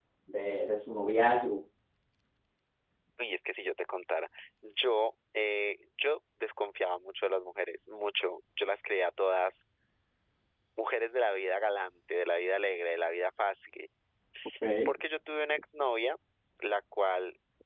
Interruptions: none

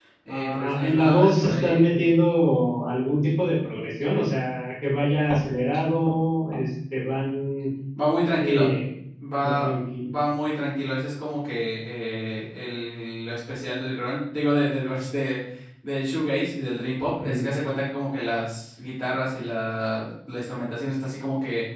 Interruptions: present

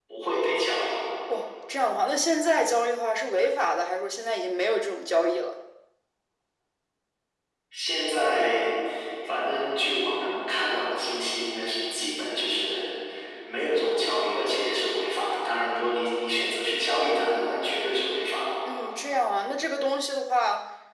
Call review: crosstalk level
none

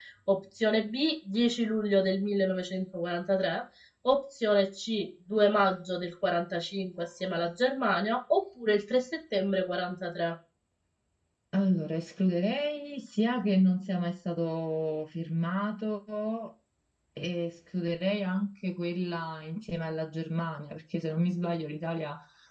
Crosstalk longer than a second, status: none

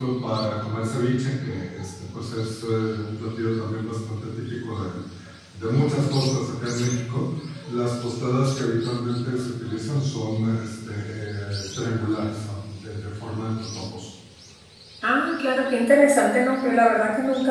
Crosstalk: none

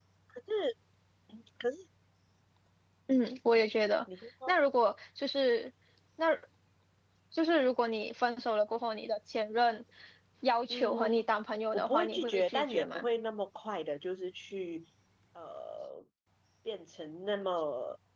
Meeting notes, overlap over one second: present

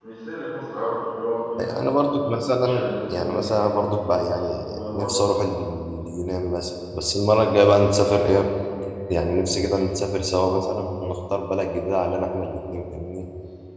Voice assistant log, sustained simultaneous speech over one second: present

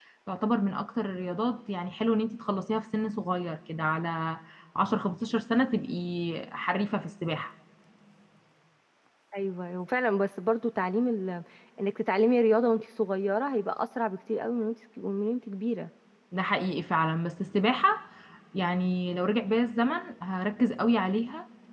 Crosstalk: none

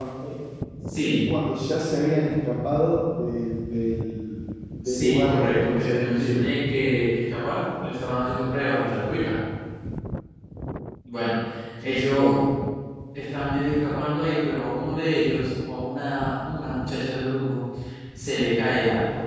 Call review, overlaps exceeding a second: present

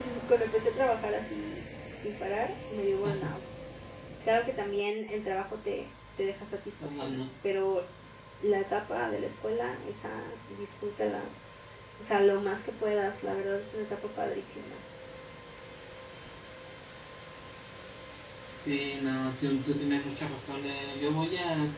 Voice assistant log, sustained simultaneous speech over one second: none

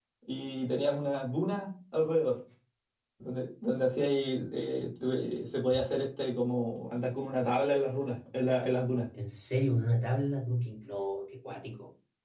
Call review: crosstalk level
none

